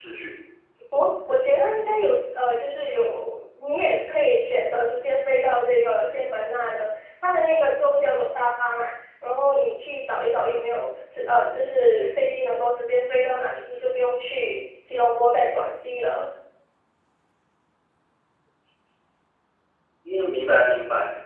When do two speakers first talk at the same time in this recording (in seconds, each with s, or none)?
none